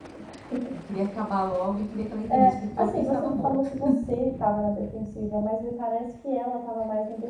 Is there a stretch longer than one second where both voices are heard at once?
Yes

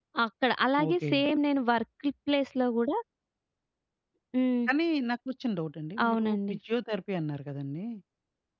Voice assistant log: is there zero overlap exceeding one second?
Yes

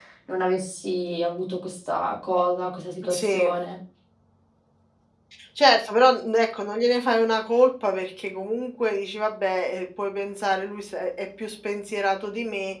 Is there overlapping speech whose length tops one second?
No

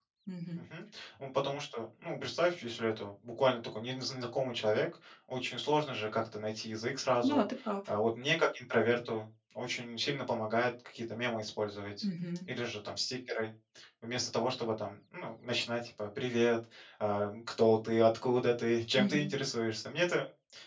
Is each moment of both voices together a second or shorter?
Yes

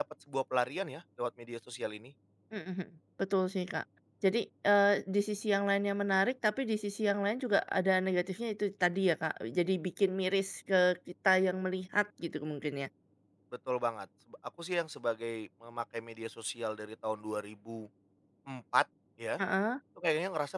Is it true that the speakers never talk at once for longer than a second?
Yes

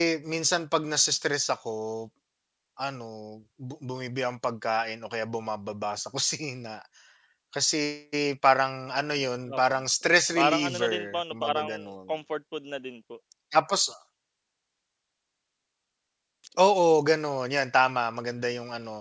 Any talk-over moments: Yes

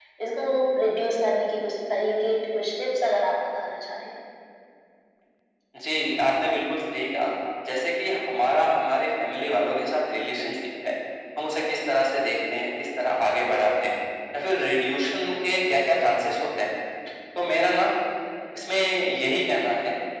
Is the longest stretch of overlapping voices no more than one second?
Yes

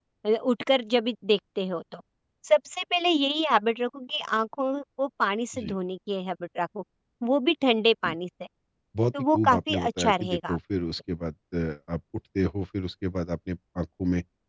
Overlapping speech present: Yes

